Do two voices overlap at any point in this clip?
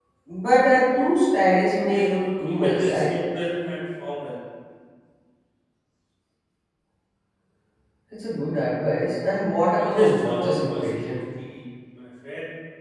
Yes, from 1.9 s

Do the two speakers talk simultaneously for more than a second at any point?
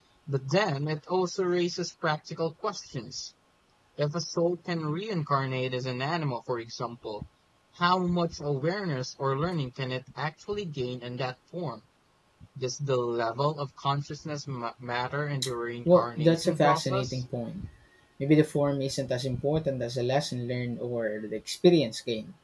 Yes, from 15.9 s

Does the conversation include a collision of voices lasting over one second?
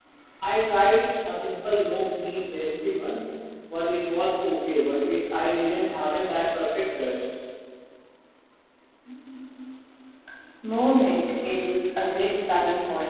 No

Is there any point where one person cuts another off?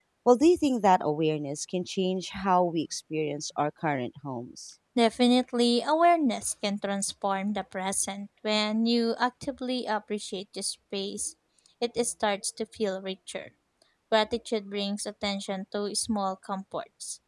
No

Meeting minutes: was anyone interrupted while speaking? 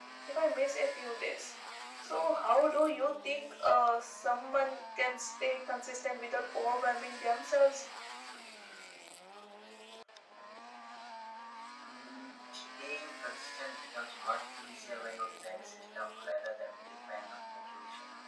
No

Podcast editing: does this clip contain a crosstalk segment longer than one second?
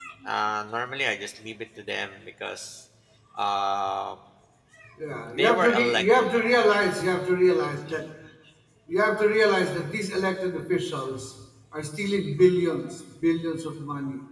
Yes, from 5.4 s

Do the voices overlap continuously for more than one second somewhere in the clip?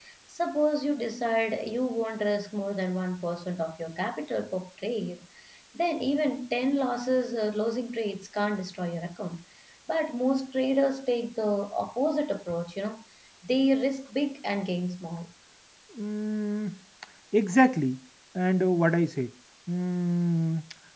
No

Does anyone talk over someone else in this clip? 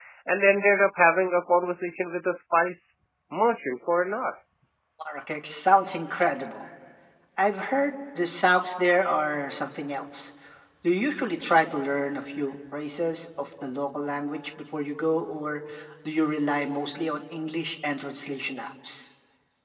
No

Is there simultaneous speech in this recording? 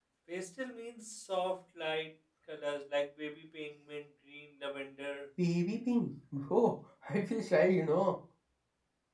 No

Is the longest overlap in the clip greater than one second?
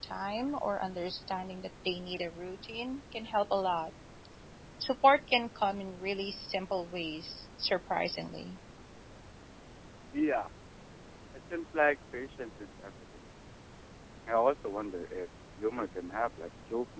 No

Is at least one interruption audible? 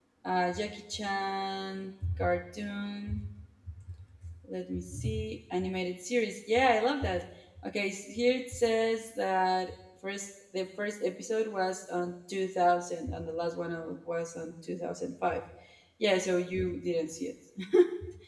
No

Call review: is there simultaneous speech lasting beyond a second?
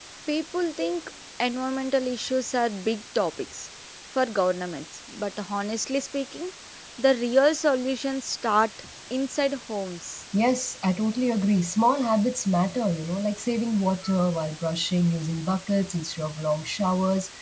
No

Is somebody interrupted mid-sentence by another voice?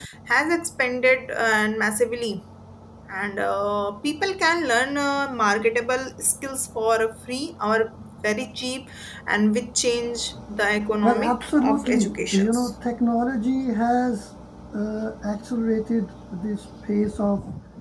Yes, from 11.0 s

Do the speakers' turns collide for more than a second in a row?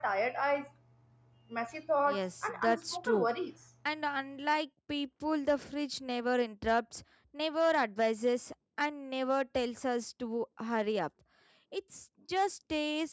Yes, from 2.1 s

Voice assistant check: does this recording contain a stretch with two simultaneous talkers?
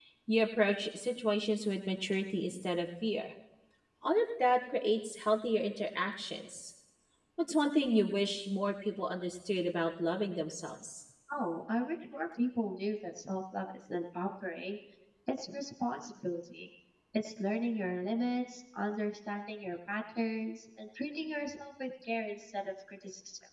No

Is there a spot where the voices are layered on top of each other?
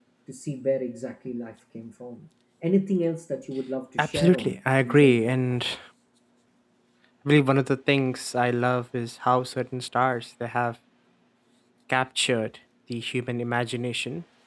Yes, from 4.0 s

